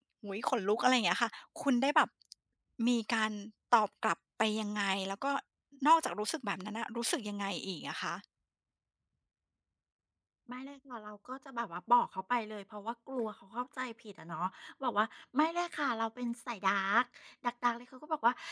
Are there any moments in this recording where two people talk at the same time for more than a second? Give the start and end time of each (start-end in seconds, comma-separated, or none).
none